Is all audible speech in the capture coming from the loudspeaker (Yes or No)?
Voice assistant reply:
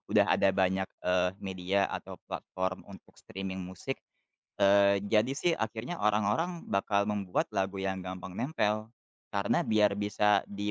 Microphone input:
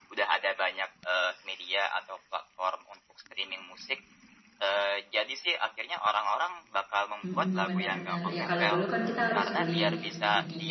No